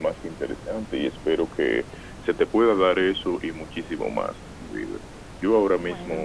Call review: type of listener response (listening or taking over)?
listening